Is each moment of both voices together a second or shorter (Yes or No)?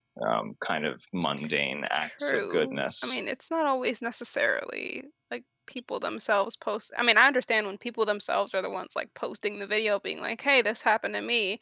No